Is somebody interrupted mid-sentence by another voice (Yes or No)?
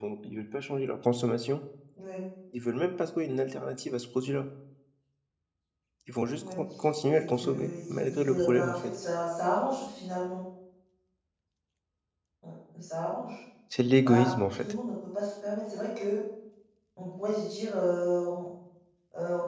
Yes